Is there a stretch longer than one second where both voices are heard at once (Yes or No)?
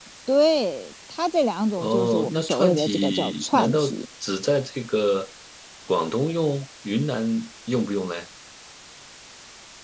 Yes